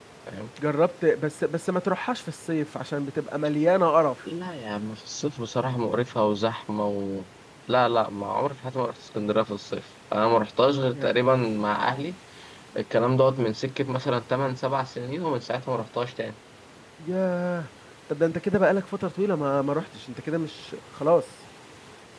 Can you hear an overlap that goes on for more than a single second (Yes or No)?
No